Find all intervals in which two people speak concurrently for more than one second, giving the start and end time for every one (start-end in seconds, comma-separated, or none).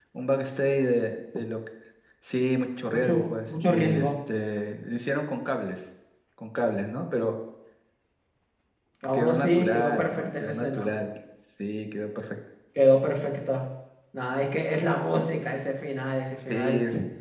2.9-4.1, 9.1-10.9